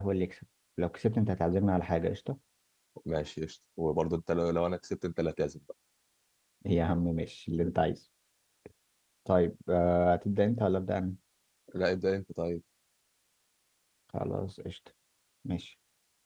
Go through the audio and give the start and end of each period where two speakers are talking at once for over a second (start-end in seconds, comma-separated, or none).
none